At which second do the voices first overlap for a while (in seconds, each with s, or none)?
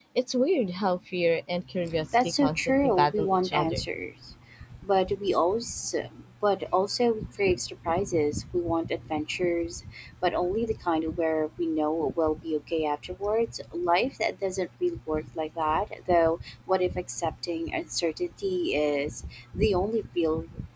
2.1 s